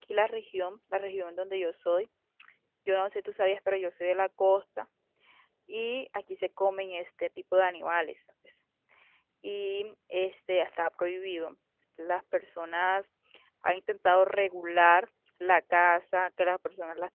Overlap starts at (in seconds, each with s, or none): none